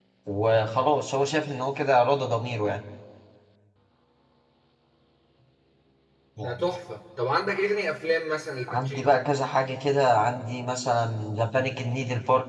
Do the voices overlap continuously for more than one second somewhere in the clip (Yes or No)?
No